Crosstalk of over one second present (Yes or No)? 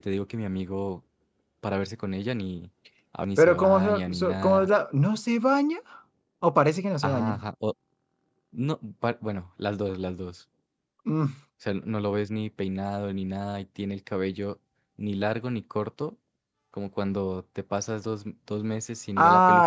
Yes